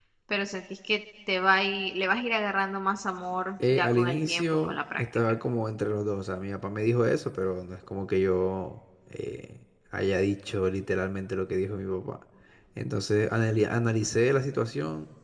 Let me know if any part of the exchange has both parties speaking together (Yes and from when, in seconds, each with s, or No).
Yes, from 3.6 s